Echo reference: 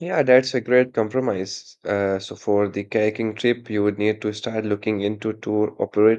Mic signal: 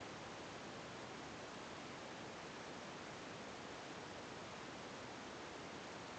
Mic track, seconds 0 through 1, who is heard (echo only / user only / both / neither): neither